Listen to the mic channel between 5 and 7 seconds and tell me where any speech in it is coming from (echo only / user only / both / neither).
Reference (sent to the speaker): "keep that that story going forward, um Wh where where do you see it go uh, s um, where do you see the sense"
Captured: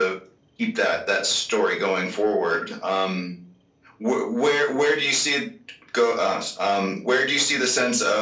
echo only